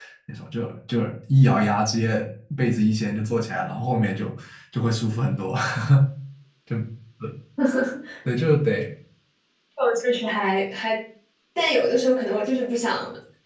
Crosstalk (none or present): none